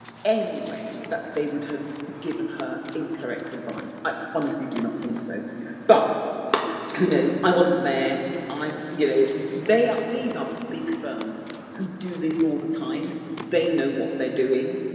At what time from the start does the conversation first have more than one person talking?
none

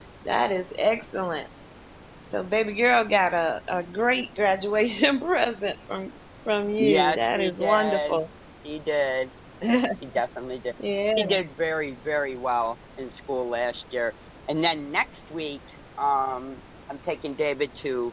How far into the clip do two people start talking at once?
7 s

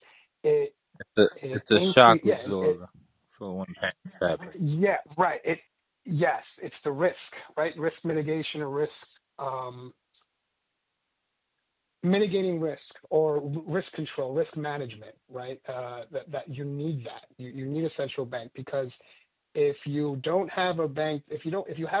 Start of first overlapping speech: 2 s

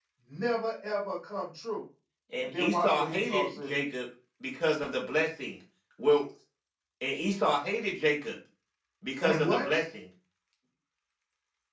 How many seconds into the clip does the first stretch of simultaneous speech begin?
2 s

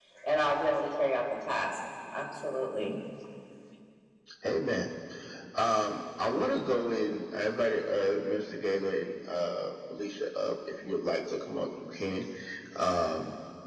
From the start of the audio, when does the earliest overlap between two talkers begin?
none

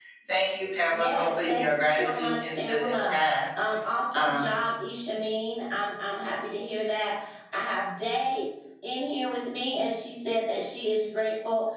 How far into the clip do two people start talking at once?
1 s

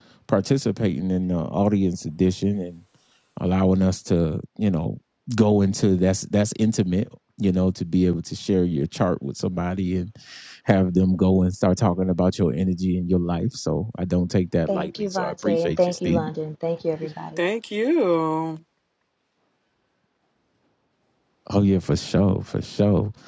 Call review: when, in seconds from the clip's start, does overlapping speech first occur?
15 s

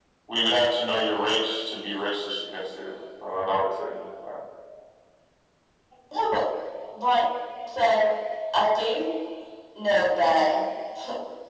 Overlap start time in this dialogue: none

